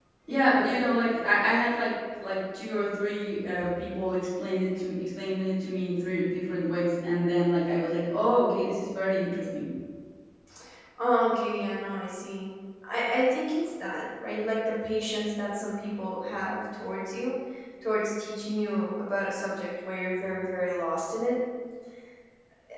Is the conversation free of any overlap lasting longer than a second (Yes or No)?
Yes